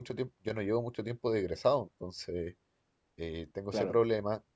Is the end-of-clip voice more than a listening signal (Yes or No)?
No